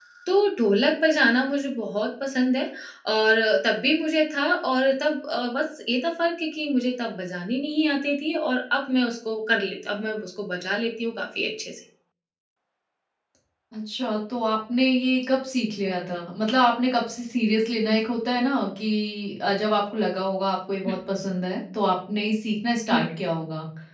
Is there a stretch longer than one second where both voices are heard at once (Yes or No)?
No